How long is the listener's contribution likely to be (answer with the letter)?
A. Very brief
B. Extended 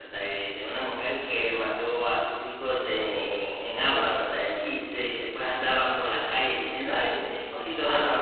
B